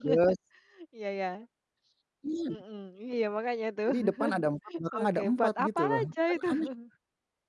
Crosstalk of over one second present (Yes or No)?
Yes